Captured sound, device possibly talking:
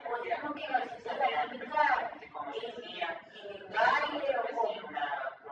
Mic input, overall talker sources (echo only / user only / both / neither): echo only